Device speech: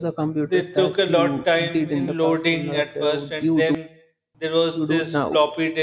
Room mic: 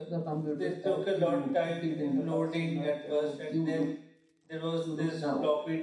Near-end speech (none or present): none